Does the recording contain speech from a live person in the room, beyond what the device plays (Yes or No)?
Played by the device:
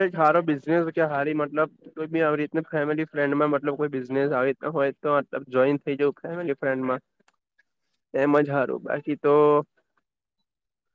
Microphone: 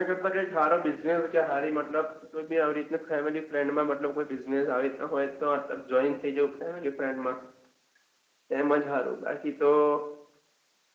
No